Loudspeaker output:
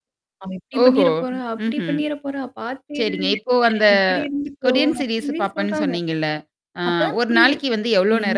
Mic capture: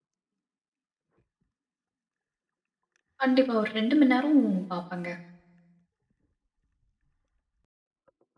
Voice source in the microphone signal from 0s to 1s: neither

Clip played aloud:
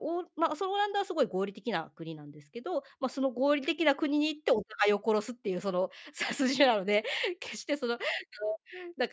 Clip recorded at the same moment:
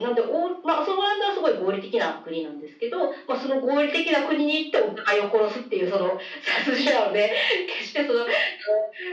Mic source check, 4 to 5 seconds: echo only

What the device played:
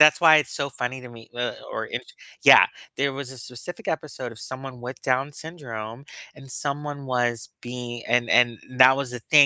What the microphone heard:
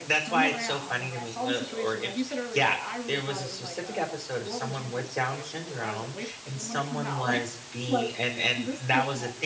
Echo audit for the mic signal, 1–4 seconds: both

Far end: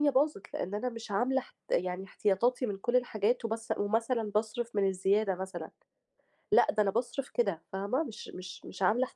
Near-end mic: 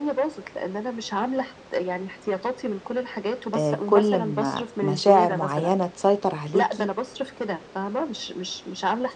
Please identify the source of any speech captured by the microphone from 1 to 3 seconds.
echo only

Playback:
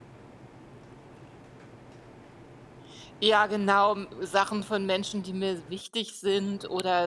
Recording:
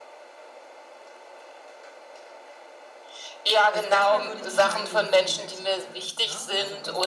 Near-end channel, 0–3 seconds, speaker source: neither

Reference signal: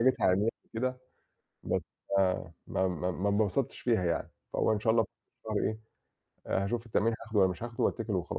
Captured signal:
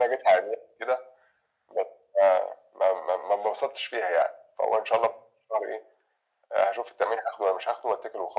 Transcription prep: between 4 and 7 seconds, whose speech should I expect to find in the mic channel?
echo only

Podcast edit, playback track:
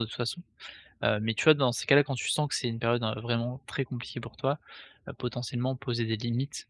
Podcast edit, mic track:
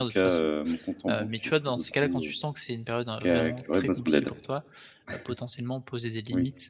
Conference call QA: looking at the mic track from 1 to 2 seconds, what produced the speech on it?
both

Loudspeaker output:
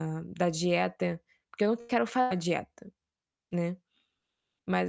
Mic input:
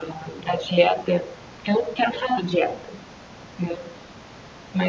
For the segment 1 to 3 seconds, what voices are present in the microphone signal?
echo only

